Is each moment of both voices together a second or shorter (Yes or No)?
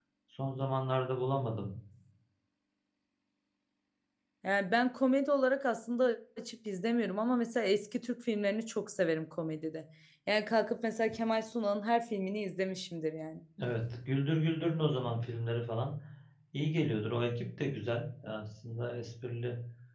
Yes